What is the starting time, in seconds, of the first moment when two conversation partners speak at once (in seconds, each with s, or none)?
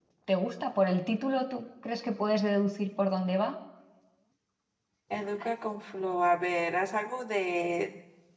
none